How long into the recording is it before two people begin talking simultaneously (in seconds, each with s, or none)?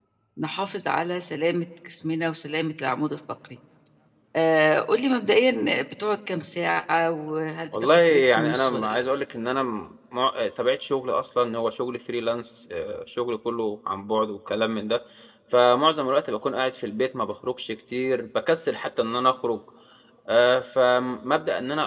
7.7 s